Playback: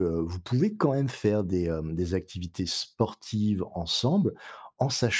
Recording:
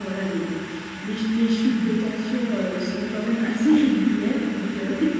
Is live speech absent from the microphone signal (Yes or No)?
No